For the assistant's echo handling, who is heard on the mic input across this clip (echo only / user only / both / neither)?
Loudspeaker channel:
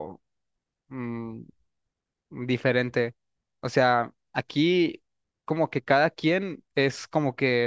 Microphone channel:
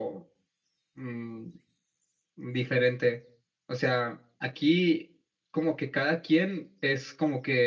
echo only